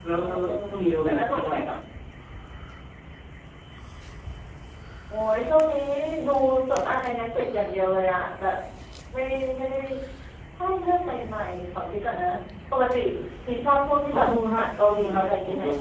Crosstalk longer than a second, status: present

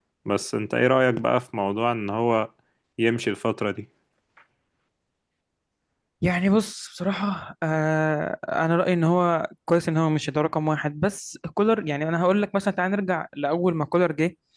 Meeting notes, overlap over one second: none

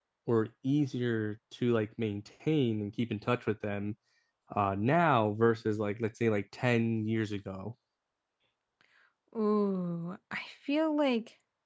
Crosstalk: none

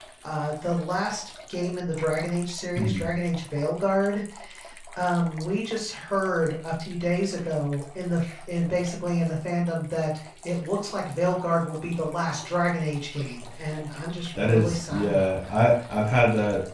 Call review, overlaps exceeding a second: present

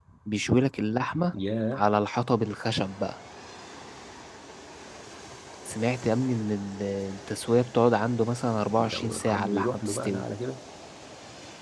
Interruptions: present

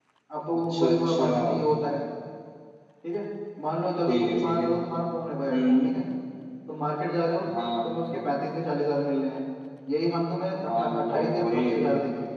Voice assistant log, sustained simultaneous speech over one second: present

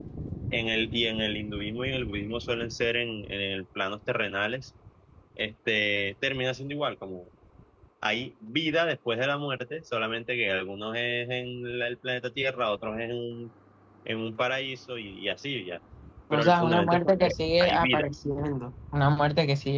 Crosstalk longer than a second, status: present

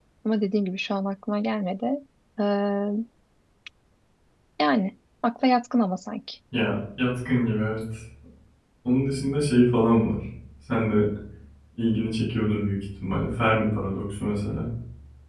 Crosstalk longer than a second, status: none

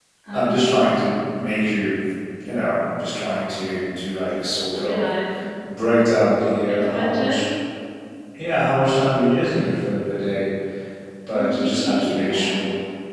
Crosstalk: present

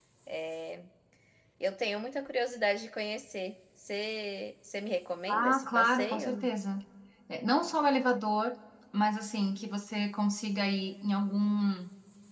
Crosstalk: present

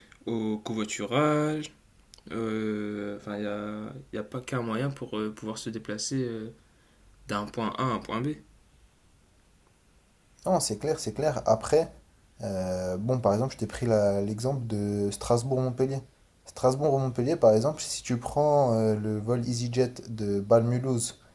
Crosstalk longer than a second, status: none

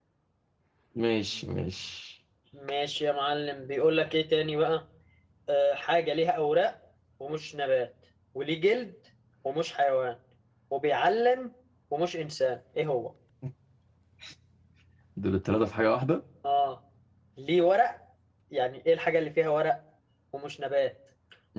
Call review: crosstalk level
none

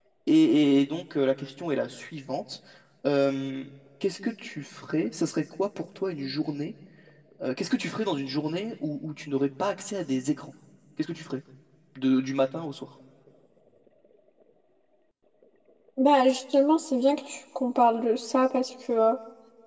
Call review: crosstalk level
none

